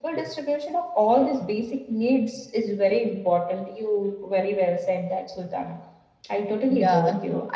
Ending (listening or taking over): taking over